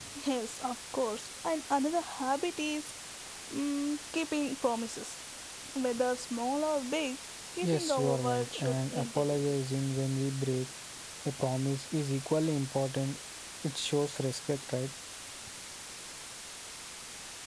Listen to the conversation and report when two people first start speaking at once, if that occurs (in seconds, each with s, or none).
7.6 s